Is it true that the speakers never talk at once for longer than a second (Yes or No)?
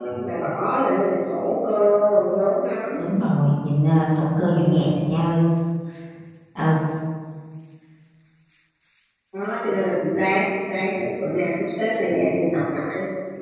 Yes